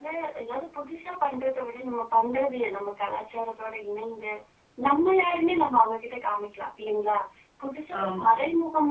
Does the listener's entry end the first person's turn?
No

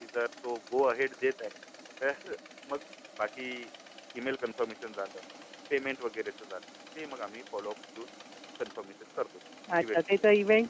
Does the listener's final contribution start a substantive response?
Yes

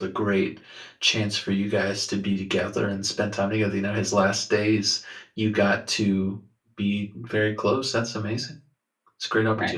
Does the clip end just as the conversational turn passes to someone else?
Yes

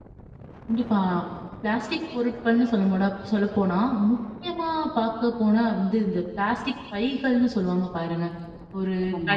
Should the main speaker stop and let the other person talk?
No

